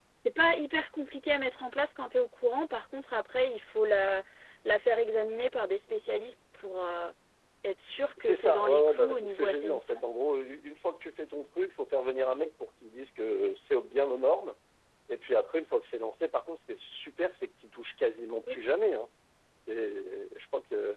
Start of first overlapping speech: 8.2 s

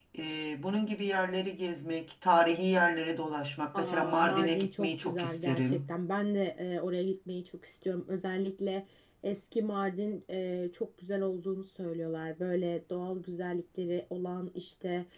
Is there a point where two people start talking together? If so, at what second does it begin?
3.7 s

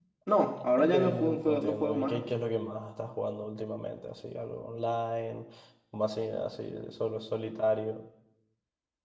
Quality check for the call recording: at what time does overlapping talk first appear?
0.8 s

